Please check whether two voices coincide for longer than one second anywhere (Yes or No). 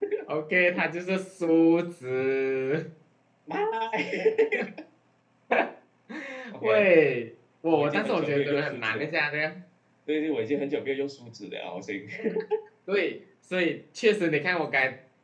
Yes